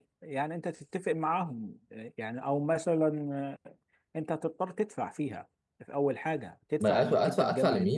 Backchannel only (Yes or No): No